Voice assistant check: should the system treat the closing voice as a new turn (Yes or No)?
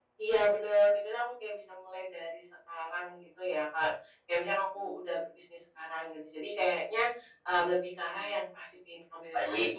Yes